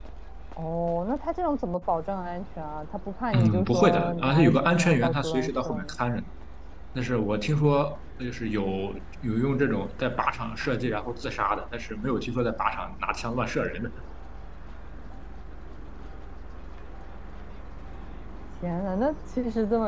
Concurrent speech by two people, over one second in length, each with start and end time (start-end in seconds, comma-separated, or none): 3.3-5.9